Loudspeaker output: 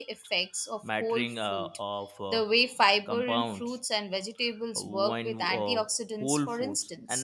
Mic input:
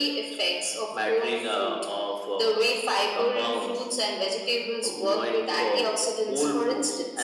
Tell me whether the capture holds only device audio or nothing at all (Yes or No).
Yes